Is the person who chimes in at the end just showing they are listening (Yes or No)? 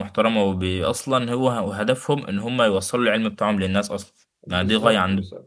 No